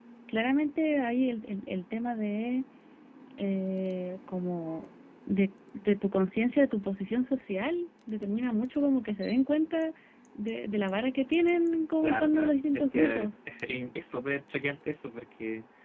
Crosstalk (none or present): present